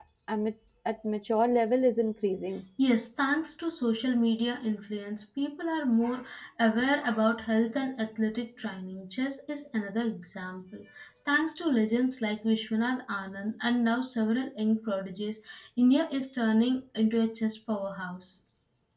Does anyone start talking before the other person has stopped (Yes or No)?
No